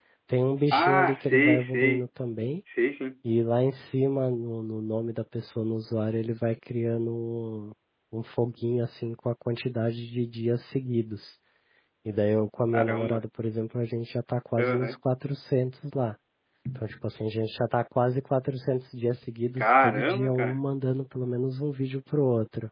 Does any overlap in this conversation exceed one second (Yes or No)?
Yes